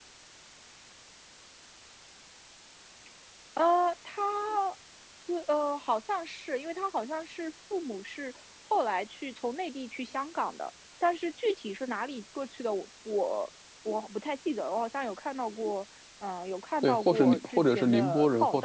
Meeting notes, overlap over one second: present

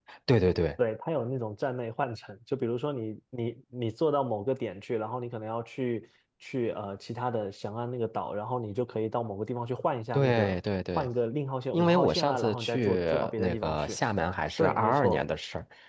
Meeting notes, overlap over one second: present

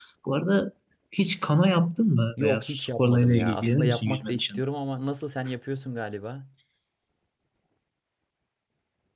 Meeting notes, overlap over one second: present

